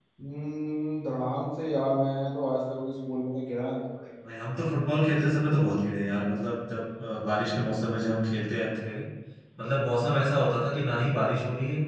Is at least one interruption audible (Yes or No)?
No